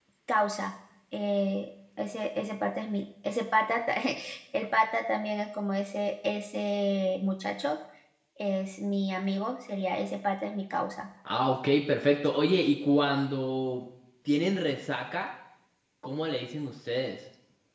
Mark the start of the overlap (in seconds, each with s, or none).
none